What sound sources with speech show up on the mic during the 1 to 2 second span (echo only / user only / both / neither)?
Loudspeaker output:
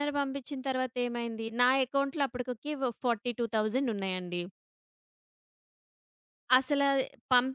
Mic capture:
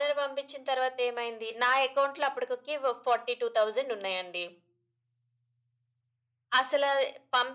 echo only